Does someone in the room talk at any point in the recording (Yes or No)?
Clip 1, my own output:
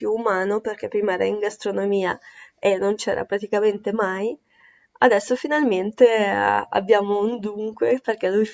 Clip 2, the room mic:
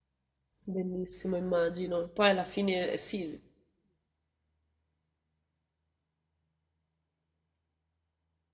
Yes